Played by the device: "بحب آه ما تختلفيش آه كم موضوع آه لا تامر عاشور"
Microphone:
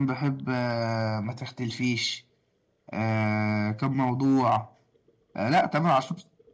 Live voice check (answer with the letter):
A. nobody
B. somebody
A